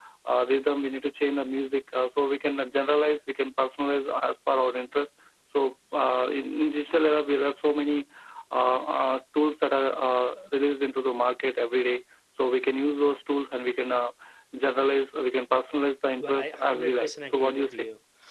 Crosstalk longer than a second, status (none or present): present